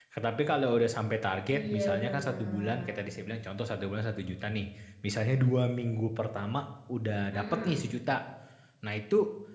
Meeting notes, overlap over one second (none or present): present